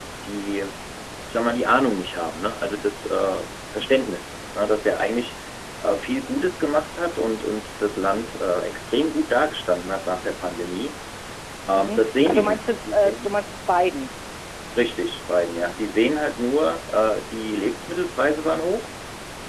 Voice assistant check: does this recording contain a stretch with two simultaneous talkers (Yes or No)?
Yes